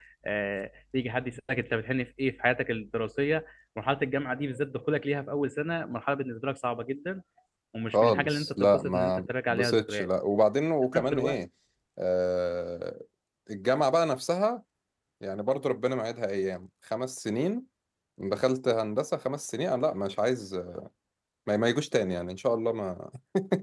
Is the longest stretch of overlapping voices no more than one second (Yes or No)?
No